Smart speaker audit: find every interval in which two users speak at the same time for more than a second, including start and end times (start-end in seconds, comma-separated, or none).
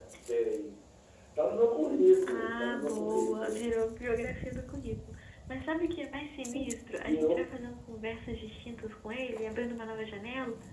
2.1-3.6